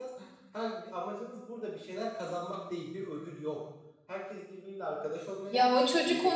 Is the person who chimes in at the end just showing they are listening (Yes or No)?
No